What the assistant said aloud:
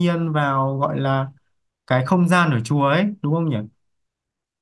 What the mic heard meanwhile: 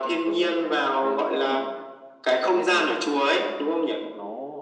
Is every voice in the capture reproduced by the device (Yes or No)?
No